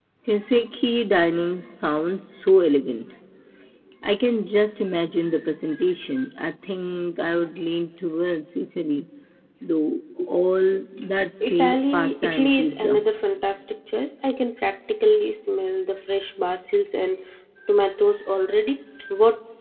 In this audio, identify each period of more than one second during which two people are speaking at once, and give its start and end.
11.5-13.1

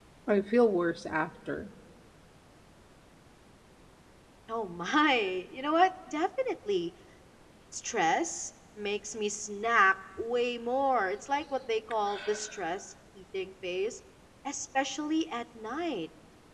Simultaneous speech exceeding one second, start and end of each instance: none

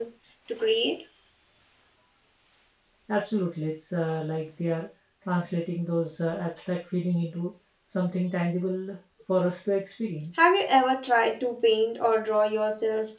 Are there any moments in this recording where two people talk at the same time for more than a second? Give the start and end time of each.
none

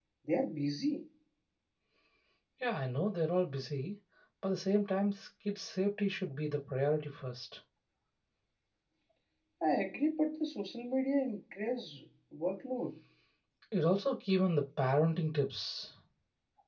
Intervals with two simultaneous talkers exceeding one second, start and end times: none

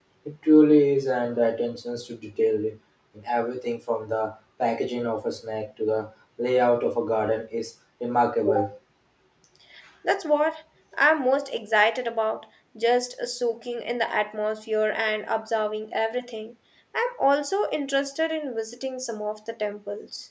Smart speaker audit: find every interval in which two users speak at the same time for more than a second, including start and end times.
none

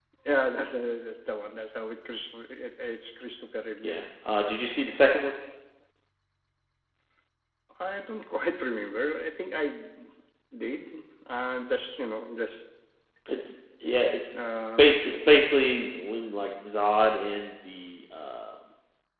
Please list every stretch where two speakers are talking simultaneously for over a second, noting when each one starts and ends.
none

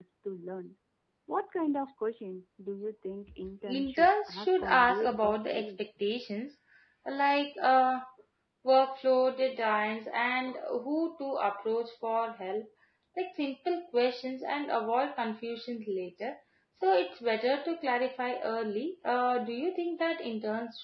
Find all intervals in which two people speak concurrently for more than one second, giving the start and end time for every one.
3.7-5.7

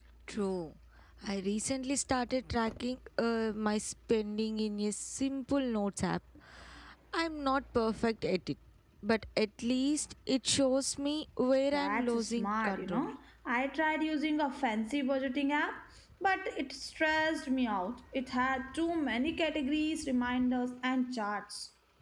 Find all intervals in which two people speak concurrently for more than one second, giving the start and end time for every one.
11.7-13.0

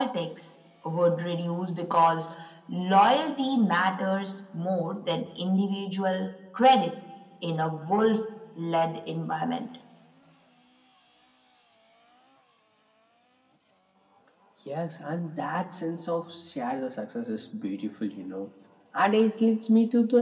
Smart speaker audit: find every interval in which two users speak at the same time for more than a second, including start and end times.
none

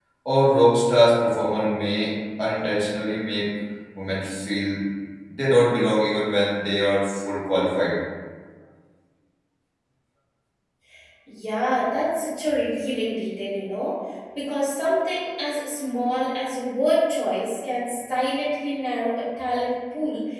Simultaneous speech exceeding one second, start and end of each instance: none

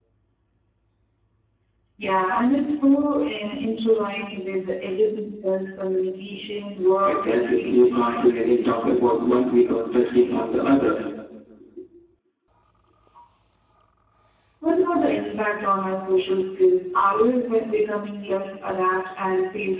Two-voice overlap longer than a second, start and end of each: 7.0-9.0

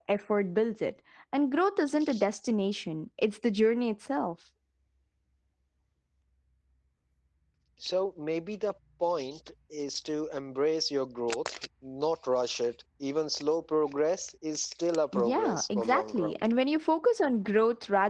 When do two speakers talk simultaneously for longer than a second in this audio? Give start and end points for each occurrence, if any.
15.1-16.3

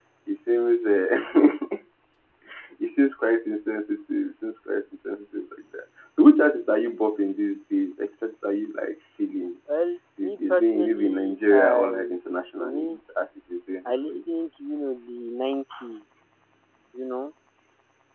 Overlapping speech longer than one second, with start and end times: 10.2-12.2

